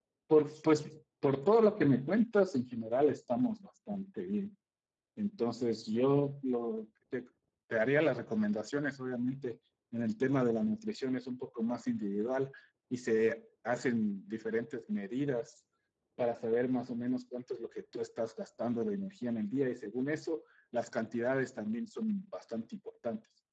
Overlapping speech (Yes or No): No